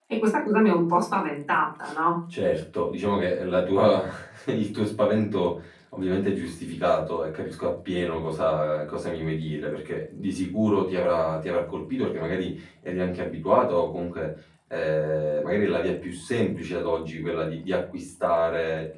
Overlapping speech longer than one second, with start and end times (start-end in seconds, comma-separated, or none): none